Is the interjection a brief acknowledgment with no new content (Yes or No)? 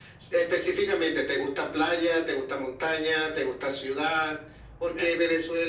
Yes